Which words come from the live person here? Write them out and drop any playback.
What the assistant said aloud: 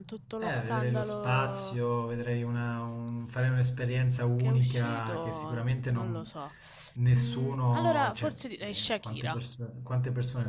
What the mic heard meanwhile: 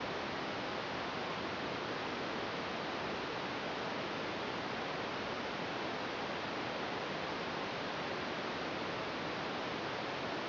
none

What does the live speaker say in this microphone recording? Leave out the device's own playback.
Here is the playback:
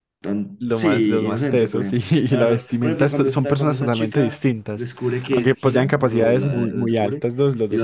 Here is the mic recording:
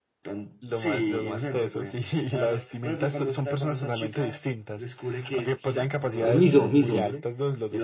No es Miso, Miso,

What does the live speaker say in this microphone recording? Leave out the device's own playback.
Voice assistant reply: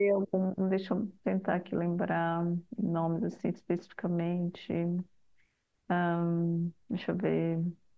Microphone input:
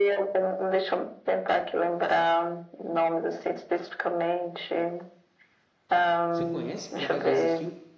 Você conhece? Por acaso já assistiu?

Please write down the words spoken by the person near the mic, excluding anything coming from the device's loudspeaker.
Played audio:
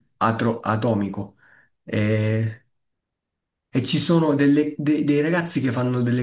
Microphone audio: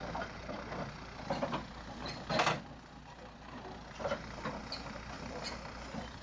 none

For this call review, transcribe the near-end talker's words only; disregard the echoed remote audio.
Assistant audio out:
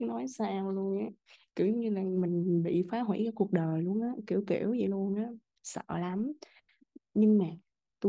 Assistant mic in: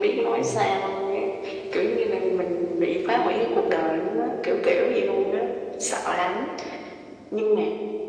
đúng không

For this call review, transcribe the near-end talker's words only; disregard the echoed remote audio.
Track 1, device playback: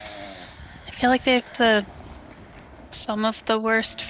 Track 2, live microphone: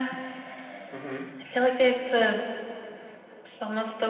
Mm-hmm.

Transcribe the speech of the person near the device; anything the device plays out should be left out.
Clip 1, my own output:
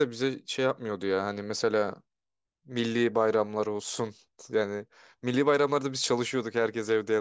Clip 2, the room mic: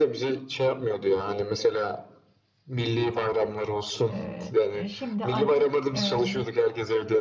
Ee, e, şimdi artık e,

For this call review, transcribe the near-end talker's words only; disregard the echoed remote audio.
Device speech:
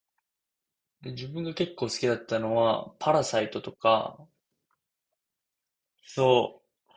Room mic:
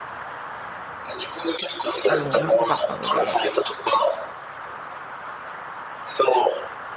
あの面白かったので、

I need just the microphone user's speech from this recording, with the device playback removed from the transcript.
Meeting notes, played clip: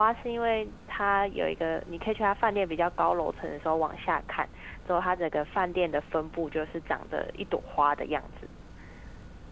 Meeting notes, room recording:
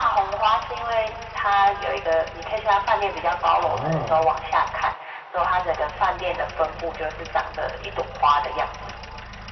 啊。

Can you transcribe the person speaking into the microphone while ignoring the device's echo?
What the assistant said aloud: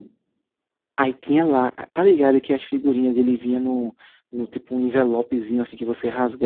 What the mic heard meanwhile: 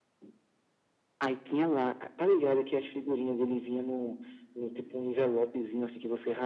none

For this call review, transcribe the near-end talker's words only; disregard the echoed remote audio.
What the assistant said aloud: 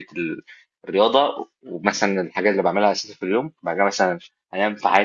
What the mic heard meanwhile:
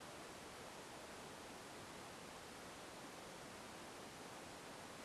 none

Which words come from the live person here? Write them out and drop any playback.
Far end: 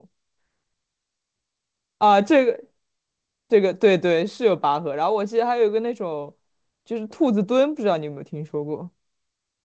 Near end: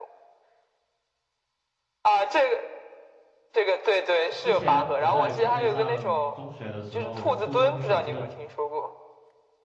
之前我在国内上中学的时候，我初中有这个

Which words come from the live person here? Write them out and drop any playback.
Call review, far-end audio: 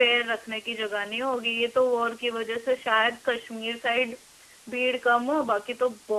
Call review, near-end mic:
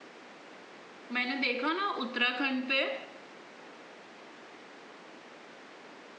मैंने देखा ना उत्तराखंड पे

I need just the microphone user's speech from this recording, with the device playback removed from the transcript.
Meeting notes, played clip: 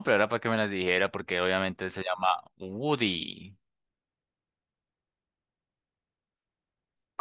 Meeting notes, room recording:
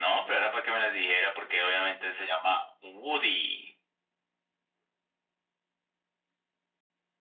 none

